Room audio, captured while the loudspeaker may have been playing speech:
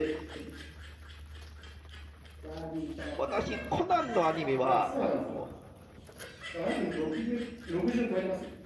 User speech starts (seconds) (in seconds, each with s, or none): 3.1 s